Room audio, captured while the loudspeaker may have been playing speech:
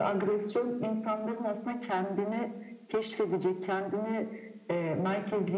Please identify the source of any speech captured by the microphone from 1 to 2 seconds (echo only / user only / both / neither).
echo only